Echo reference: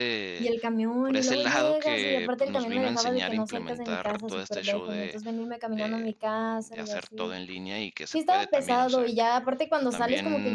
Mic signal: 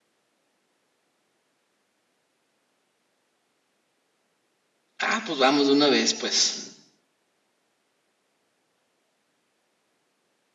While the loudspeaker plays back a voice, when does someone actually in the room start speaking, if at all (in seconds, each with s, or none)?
5.0 s